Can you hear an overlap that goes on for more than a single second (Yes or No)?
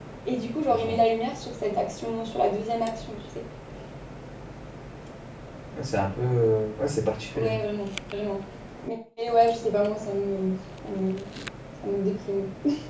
No